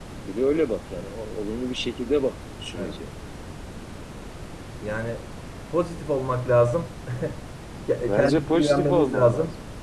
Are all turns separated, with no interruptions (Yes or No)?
No